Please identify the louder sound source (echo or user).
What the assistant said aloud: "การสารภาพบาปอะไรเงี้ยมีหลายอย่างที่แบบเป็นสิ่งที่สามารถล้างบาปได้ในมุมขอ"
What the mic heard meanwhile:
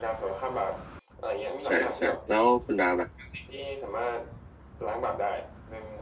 user